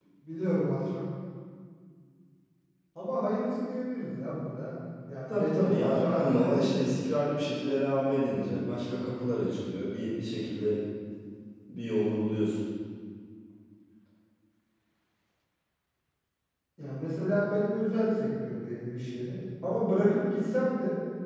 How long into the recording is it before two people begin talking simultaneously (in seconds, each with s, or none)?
5.3 s